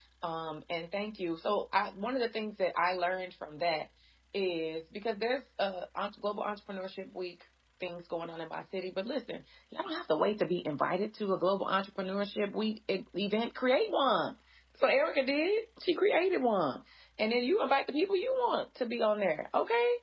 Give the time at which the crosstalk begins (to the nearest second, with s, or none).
none